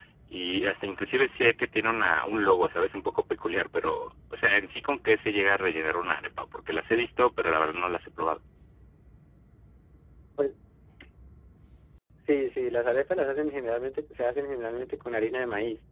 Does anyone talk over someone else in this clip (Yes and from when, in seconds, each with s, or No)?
No